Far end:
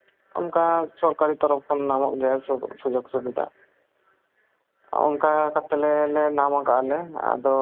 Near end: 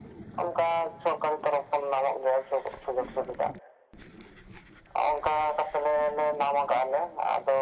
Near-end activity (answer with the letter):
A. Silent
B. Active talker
A